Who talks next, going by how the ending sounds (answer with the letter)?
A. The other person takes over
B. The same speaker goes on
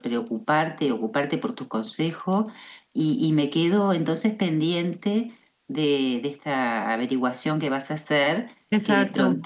B